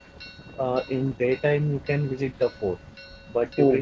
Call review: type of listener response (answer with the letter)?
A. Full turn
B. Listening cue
B